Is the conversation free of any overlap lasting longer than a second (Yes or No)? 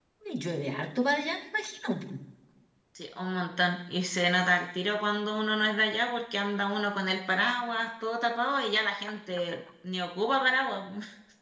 Yes